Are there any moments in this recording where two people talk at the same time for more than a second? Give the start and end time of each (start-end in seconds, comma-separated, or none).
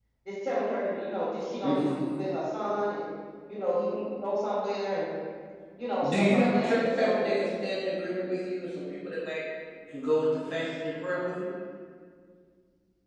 6.0-7.2